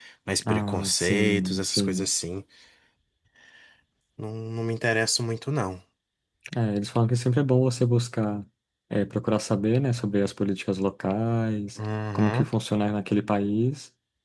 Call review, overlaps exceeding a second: present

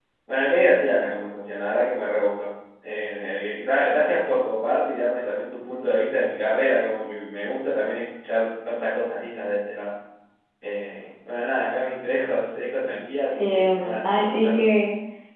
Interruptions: present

